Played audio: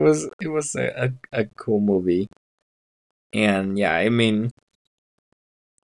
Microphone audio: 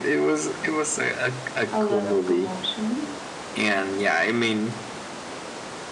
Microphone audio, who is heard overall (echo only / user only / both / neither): both